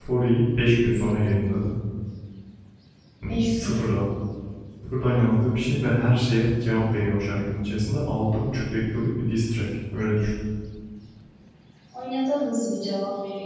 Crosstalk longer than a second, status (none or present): none